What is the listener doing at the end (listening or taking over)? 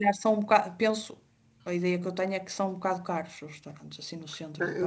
taking over